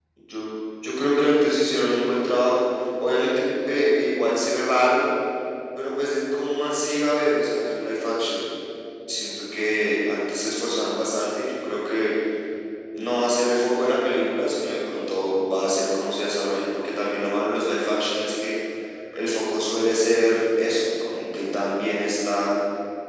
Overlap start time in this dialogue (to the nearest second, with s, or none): none